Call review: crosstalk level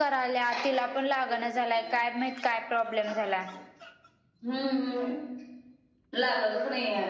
none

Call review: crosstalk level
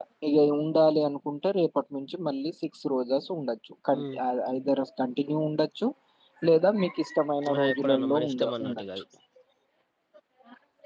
present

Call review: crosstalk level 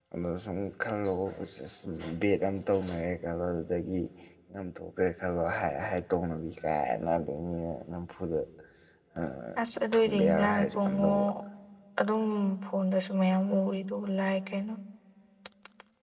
present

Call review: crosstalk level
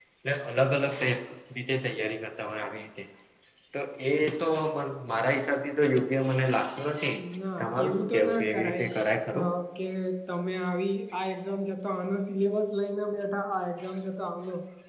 present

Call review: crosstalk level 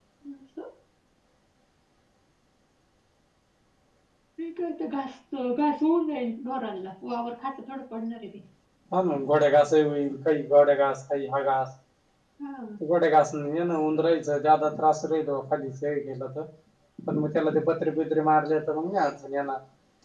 none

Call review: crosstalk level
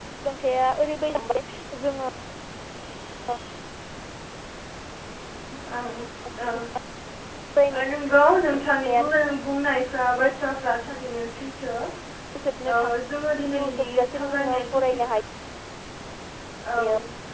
present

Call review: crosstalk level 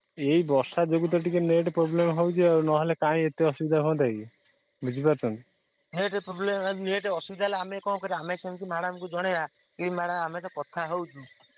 none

